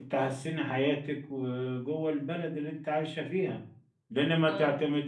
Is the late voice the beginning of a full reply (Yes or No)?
No